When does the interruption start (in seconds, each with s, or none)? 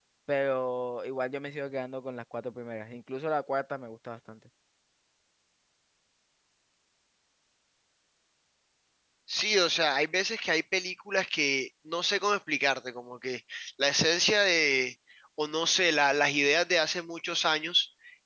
none